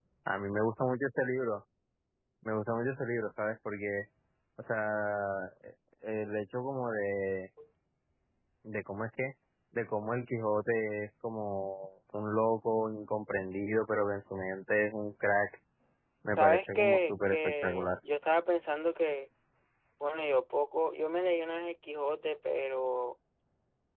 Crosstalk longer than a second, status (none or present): present